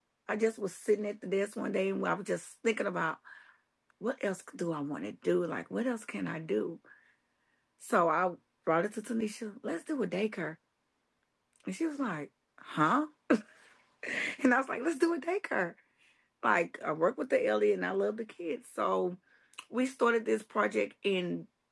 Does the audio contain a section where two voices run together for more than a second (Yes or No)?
No